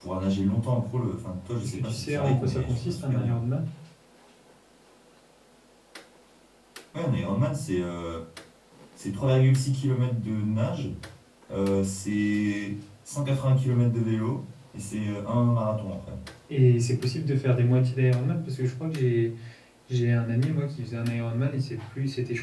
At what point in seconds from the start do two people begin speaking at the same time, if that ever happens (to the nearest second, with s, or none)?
2 s